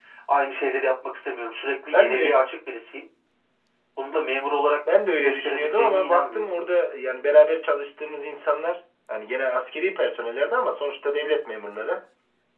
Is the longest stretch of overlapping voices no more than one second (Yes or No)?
No